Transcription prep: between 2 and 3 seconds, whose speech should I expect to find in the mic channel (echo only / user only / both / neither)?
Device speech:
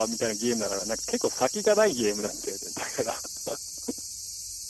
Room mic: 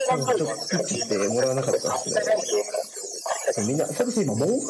both